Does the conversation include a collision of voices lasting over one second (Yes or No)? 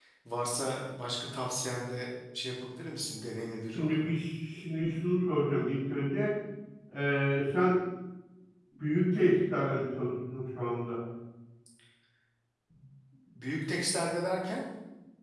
No